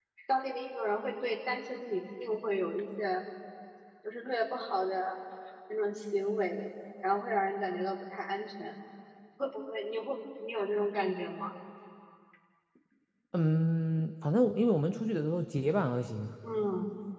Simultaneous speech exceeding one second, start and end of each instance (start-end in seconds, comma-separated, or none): none